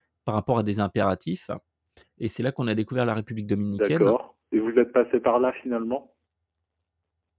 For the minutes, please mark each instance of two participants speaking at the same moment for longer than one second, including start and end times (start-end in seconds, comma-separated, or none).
none